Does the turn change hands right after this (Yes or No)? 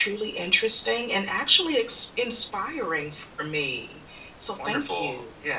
Yes